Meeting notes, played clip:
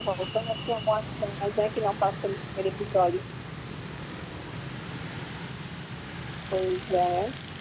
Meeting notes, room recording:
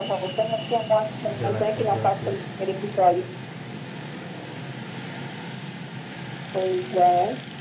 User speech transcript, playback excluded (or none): The Last of Us, né?